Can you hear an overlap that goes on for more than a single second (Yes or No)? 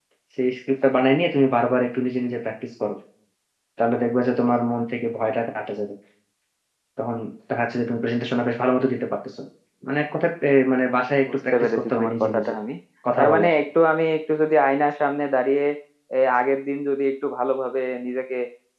Yes